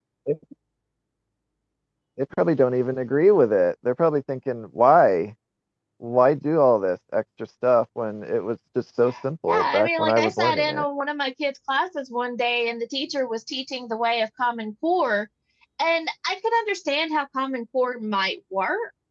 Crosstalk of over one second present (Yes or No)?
Yes